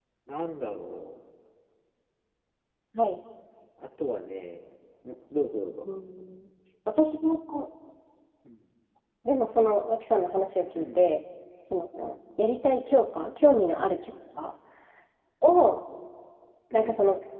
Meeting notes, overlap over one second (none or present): none